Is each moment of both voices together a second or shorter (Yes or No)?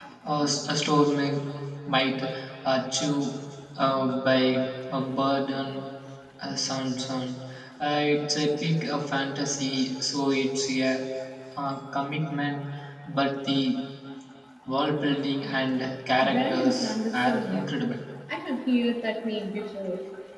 No